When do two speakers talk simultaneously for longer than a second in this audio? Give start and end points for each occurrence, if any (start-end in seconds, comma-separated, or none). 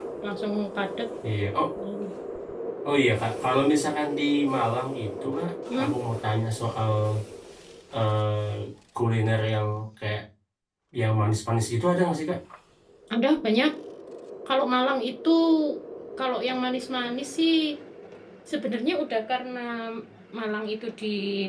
none